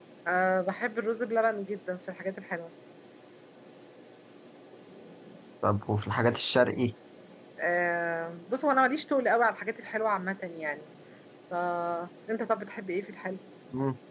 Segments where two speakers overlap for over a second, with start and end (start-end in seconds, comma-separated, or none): none